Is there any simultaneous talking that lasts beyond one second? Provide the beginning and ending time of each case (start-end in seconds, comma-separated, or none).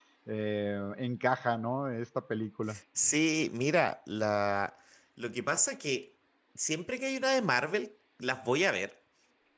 none